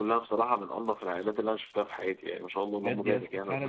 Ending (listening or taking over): taking over